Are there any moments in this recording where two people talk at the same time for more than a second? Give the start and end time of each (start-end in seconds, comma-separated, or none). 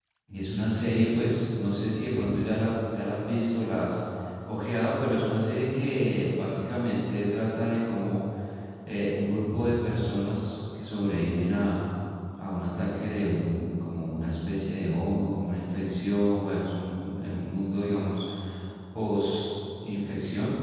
none